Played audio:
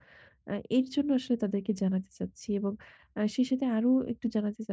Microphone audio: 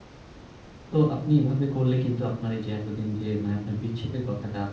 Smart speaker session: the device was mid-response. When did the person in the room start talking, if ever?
0.9 s

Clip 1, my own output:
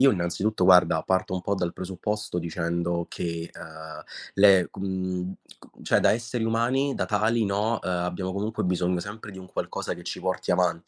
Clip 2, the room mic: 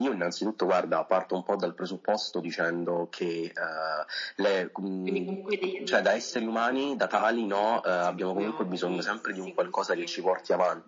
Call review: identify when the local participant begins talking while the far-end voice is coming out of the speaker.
5.0 s

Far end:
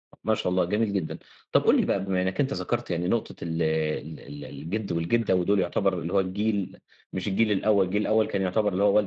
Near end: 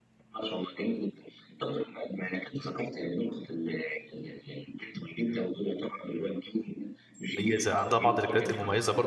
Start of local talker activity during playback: 7.4 s

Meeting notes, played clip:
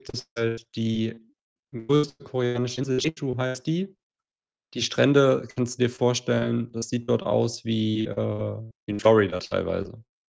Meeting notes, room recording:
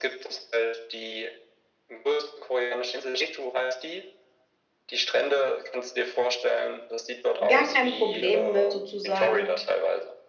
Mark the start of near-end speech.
7.5 s

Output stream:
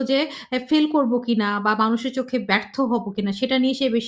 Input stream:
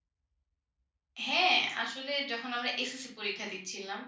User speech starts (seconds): 1.2 s

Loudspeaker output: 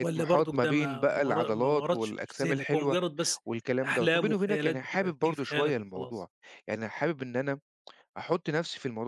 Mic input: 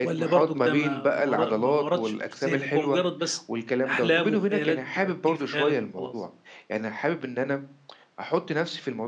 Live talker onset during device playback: none

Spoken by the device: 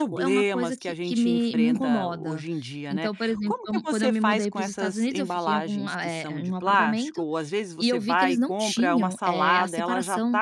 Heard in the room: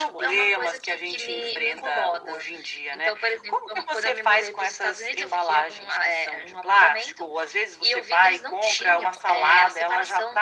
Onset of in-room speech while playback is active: none

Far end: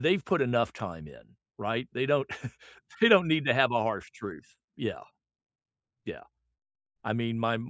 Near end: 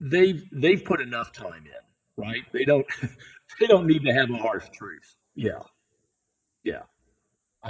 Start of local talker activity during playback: none

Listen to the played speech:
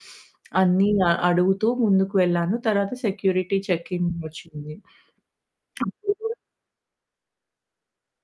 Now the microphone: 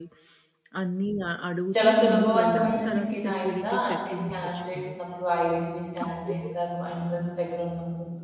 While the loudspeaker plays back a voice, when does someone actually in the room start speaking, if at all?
1.8 s

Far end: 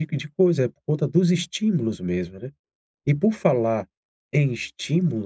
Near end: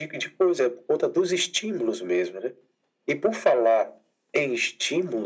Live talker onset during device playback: none

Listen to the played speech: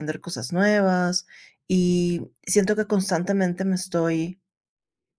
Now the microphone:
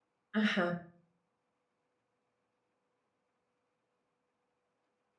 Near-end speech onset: 0.3 s

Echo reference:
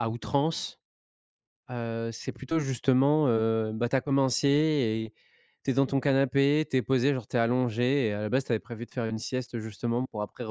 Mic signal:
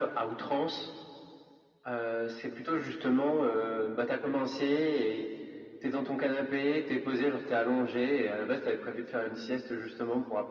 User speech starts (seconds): none

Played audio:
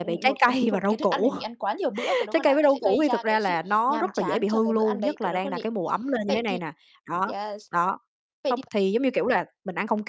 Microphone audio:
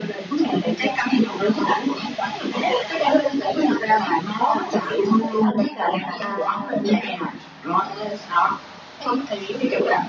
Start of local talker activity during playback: 6.2 s

